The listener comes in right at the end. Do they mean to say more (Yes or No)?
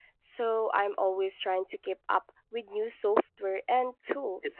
Yes